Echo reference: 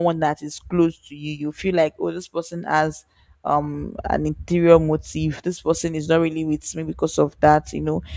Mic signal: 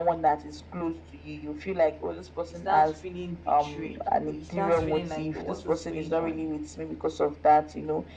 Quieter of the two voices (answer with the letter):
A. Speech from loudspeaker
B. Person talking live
B